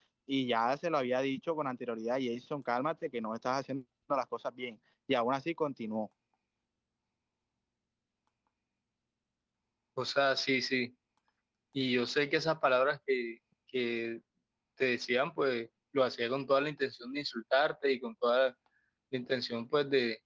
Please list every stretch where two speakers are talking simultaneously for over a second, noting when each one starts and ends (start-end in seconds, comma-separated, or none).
none